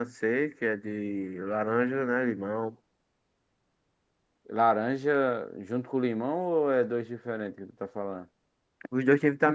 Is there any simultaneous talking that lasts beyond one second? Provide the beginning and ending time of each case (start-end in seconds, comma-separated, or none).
none